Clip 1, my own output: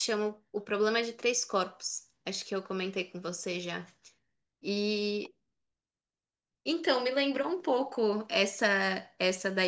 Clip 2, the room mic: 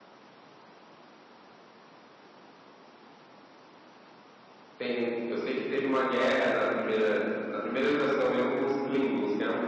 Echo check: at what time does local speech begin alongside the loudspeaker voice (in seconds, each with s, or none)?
4.8 s